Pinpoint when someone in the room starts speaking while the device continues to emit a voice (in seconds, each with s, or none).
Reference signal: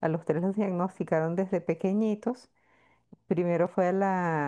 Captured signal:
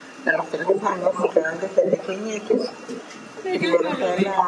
3.4 s